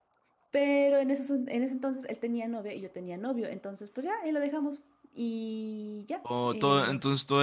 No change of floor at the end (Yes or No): No